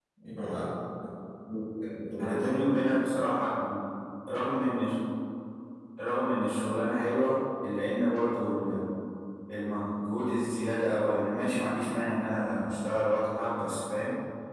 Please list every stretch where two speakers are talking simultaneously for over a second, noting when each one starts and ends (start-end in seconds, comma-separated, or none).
none